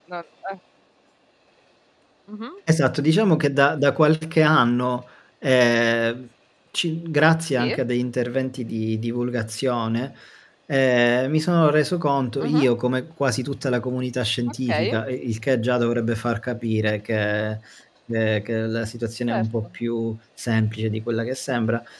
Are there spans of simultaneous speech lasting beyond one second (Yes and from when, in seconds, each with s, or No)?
No